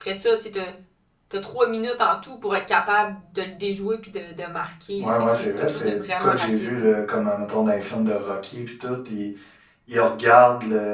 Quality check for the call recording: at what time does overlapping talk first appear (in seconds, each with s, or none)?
5.0 s